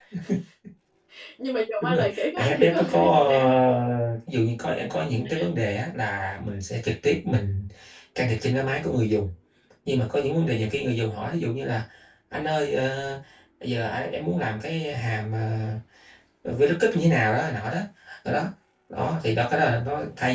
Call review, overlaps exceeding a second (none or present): present